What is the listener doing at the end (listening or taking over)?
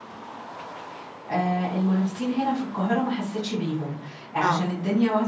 listening